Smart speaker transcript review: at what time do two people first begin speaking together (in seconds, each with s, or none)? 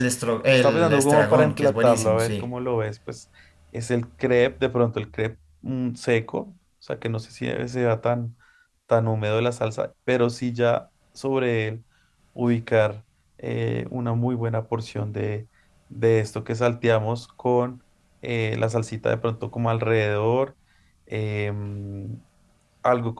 0.6 s